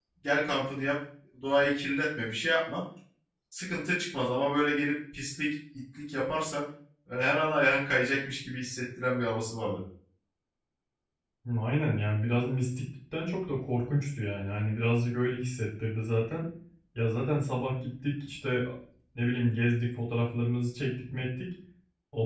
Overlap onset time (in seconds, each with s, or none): none